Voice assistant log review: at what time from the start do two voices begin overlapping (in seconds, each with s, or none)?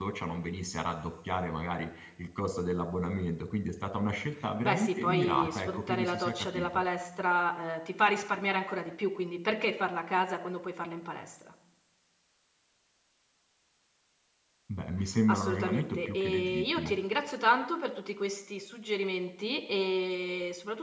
4.6 s